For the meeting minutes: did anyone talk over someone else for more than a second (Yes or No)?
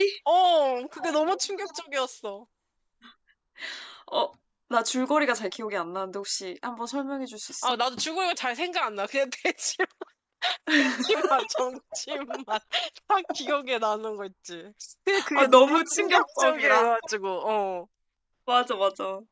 Yes